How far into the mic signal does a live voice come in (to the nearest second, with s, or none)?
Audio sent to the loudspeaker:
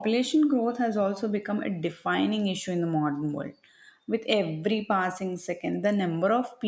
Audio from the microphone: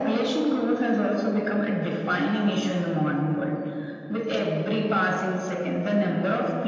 none